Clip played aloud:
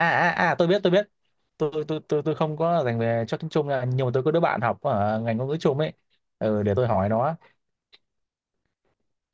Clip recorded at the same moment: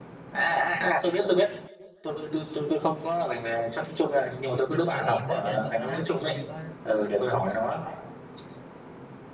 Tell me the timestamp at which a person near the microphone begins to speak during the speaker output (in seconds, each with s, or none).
4.7 s